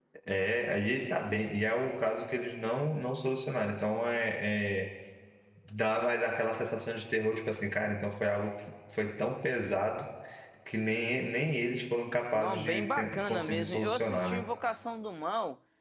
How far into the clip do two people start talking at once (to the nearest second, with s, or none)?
12 s